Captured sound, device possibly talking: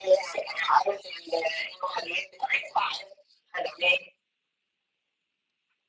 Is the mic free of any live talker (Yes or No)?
Yes